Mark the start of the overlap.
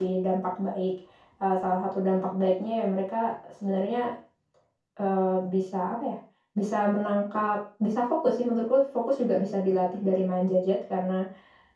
none

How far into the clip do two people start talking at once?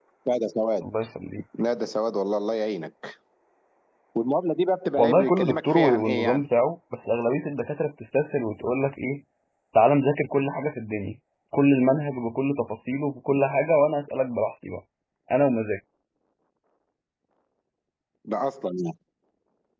5.0 s

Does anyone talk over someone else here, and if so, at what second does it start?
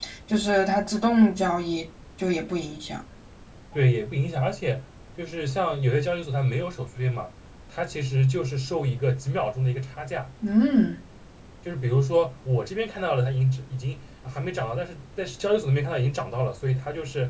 none

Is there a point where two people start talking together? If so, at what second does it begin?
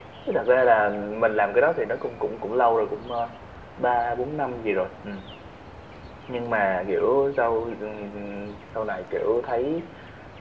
none

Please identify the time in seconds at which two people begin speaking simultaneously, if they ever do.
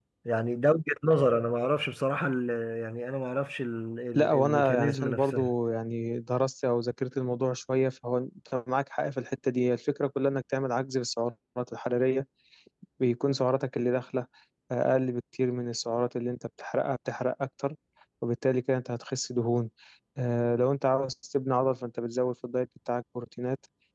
4.2 s

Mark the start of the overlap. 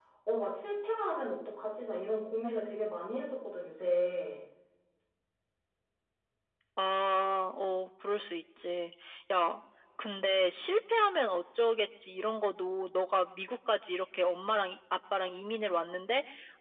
none

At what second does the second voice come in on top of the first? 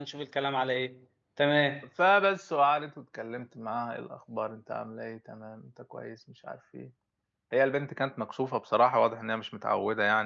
none

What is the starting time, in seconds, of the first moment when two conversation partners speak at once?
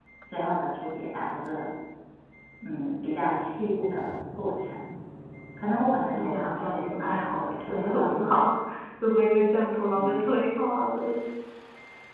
6.1 s

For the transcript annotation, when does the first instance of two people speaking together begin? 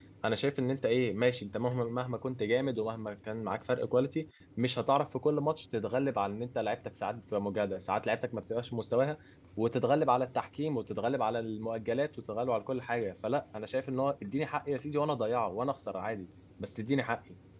none

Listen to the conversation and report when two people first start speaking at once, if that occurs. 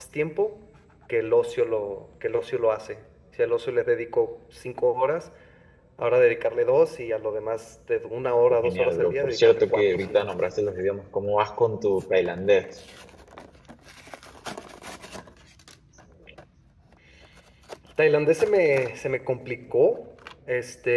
8.6 s

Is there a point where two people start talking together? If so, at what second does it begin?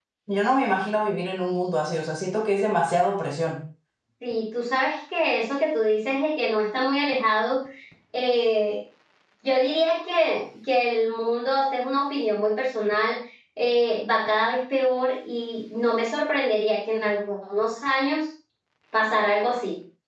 none

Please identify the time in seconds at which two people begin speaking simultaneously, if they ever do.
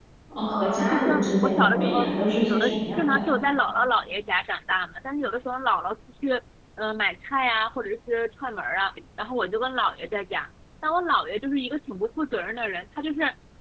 0.6 s

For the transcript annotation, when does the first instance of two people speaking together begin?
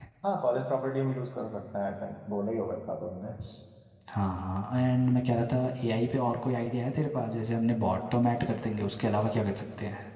none

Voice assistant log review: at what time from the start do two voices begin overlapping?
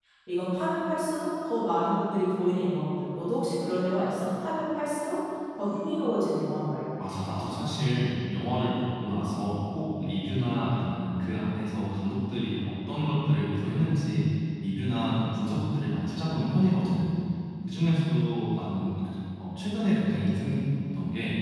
none

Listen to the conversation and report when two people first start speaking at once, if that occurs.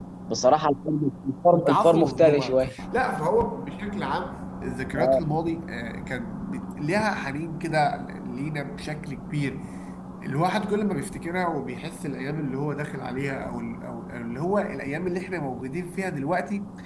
1.5 s

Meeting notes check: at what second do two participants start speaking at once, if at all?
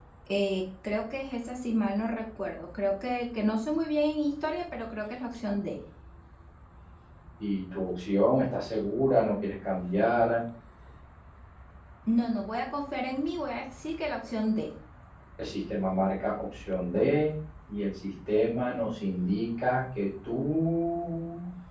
none

